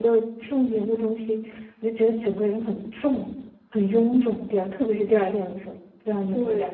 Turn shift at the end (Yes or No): Yes